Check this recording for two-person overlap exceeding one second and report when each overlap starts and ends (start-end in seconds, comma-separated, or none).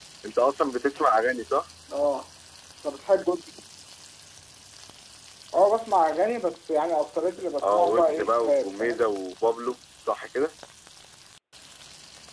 7.6-9.1